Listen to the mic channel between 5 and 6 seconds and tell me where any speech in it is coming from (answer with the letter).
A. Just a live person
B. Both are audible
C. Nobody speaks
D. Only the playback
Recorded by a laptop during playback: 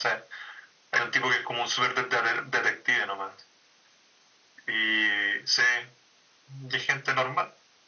D